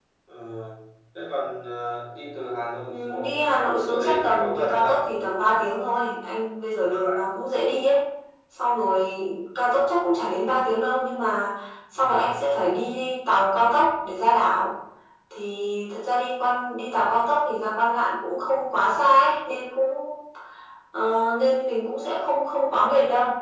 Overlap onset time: 2.9 s

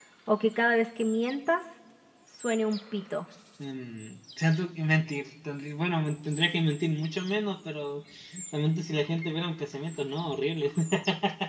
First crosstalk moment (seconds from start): none

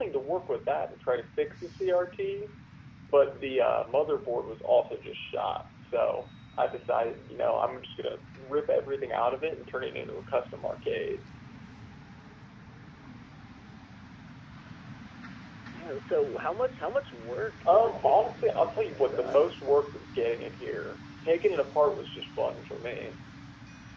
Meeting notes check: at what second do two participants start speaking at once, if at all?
17.6 s

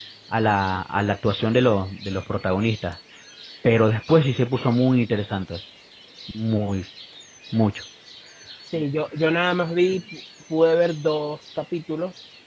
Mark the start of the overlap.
none

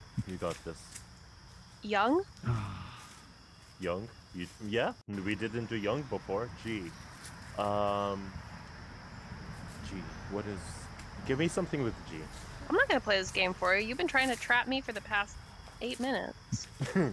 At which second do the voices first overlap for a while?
none

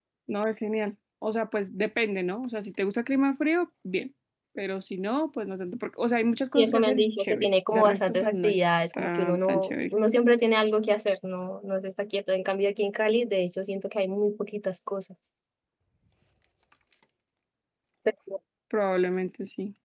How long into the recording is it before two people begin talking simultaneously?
6.5 s

